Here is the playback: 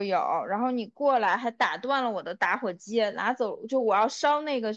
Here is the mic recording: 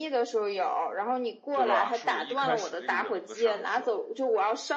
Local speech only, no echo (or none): 对吧？是我一开始那个人物的上司。